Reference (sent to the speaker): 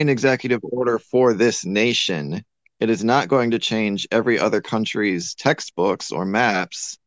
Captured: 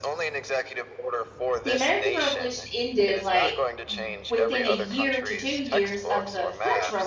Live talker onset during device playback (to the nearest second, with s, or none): 2 s